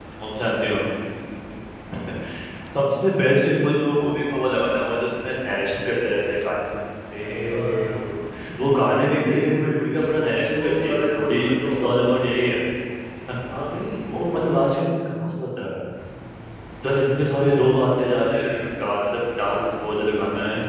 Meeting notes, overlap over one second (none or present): present